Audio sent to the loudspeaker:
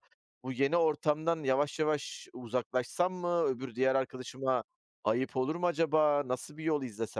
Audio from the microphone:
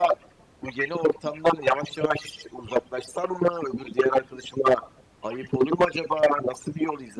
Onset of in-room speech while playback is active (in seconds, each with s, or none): none